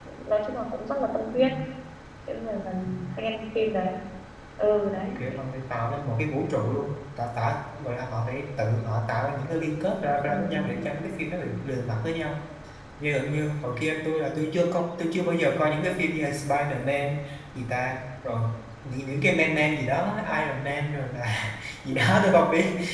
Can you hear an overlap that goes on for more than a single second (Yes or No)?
No